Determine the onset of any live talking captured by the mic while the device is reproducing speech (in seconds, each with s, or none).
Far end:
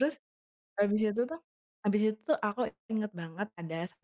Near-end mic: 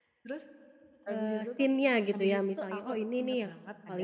1.1 s